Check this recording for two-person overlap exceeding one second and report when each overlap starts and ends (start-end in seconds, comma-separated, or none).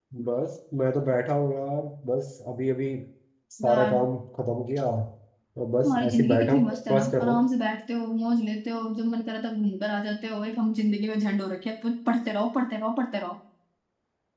5.8-7.4